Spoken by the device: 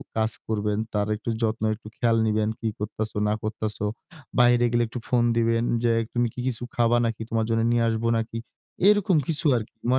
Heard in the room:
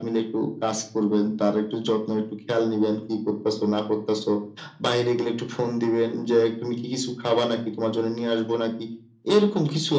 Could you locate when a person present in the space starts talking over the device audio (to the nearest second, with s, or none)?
none